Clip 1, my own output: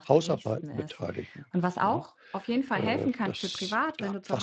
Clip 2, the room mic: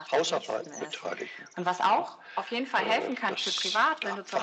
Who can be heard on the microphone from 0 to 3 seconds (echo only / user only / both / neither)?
echo only